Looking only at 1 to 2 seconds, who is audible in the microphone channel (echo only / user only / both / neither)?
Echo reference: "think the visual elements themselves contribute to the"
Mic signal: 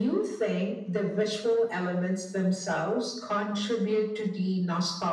echo only